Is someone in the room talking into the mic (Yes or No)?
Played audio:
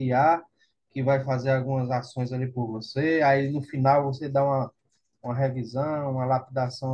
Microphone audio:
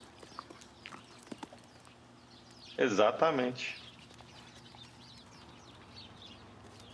Yes